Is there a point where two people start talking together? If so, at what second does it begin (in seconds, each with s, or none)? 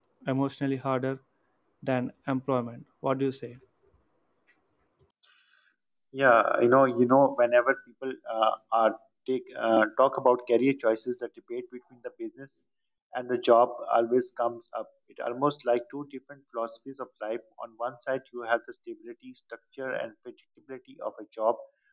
none